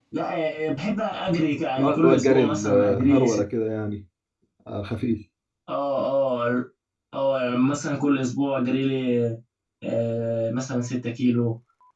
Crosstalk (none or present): present